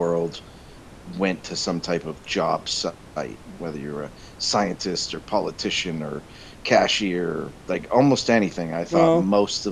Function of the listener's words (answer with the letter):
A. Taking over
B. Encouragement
B